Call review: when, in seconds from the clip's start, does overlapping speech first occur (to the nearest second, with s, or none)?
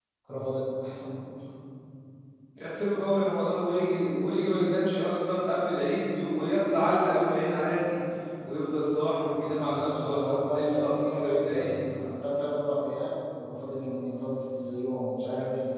10 s